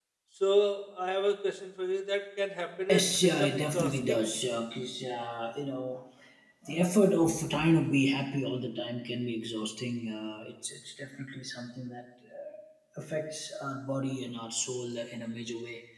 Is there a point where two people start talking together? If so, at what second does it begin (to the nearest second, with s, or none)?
3 s